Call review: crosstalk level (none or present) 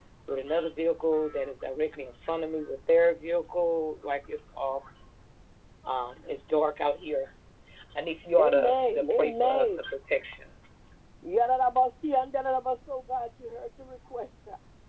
present